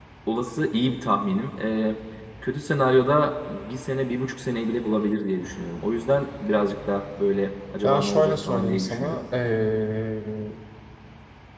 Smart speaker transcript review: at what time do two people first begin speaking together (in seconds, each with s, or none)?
7.8 s